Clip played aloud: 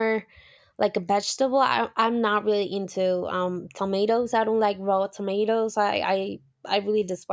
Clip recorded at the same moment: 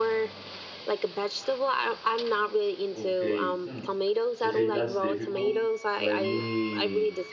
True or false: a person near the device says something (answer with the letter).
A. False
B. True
B